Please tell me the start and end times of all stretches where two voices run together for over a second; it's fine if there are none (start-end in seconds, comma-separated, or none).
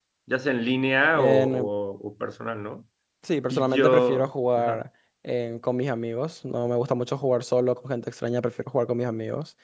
3.5-4.8